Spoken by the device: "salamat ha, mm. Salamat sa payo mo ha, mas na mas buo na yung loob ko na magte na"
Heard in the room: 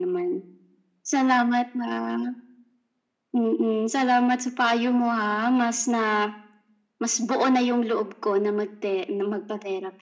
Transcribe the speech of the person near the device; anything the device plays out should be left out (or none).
none